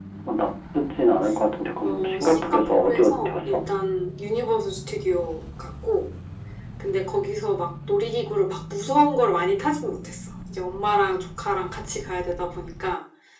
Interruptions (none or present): present